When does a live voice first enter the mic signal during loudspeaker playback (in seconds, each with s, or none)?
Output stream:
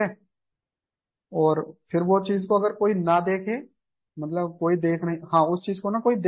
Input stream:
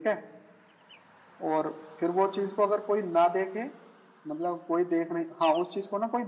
none